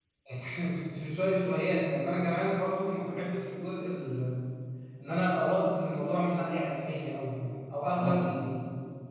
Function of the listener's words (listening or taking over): listening